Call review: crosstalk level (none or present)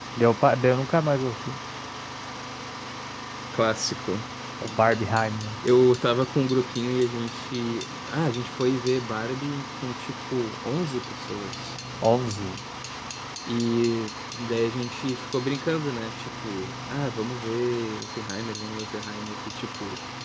none